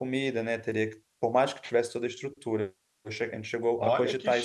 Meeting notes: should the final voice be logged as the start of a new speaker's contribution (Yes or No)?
Yes